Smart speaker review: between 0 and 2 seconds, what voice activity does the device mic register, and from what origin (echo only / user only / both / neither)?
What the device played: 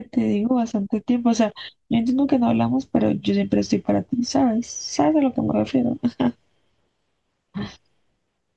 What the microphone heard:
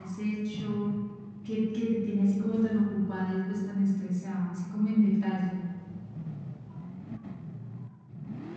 user only